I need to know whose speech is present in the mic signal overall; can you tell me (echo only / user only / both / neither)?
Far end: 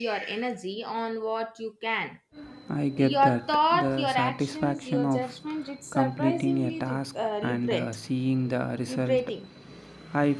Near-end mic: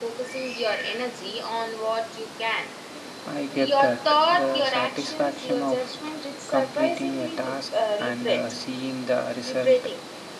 echo only